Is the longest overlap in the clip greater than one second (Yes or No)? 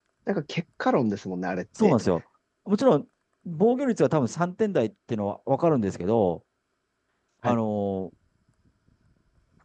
No